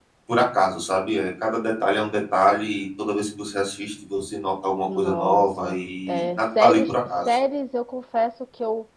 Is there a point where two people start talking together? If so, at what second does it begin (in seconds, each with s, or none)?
4.9 s